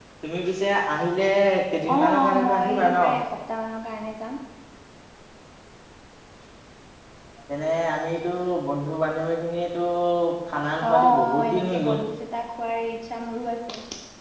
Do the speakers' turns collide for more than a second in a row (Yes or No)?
Yes